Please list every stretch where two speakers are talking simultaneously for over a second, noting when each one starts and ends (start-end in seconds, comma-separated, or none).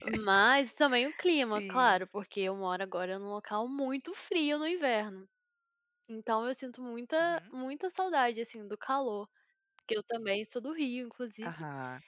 none